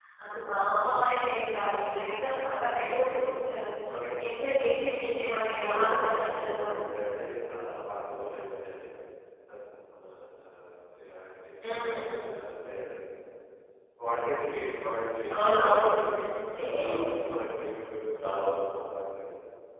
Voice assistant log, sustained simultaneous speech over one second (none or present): present